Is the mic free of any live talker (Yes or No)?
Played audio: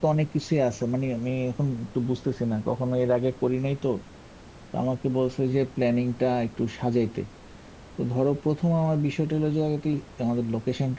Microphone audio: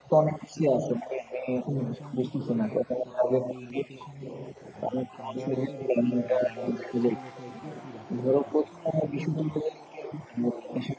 No